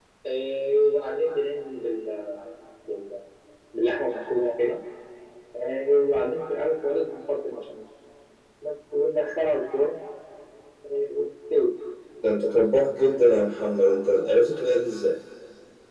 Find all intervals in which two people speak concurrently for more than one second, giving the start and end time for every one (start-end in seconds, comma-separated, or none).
none